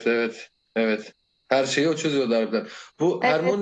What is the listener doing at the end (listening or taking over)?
listening